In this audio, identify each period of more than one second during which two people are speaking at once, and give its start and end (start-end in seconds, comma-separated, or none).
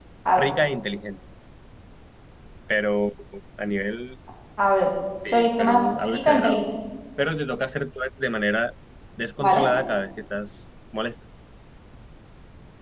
5.3-6.6